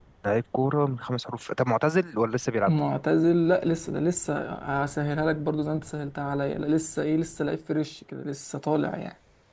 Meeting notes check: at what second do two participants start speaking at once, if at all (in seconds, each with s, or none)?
none